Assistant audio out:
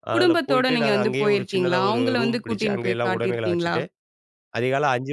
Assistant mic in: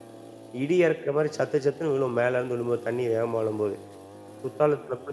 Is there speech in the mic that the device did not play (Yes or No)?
Yes